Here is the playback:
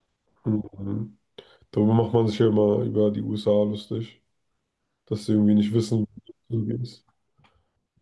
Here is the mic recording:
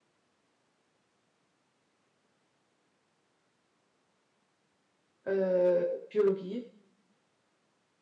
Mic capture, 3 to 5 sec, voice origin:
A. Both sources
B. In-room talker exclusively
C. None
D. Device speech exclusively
C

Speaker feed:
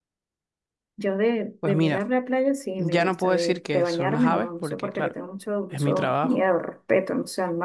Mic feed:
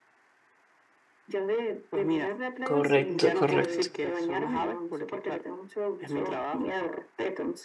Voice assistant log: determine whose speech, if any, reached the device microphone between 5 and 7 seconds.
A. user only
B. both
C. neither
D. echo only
D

